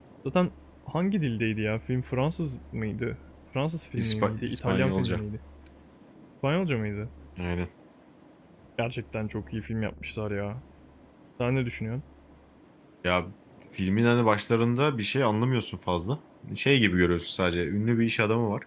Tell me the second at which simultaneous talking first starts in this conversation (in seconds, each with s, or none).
4.0 s